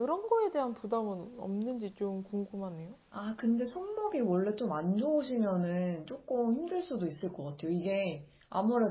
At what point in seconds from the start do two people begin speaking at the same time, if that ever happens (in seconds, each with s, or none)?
none